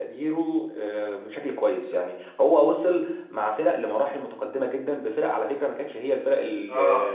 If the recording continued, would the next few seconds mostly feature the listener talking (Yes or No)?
No